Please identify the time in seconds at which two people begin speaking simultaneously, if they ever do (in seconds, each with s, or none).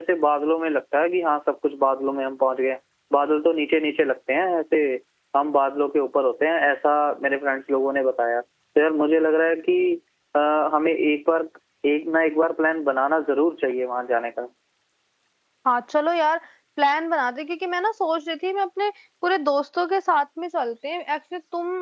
none